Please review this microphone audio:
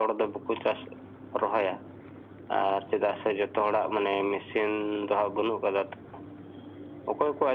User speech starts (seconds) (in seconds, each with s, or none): none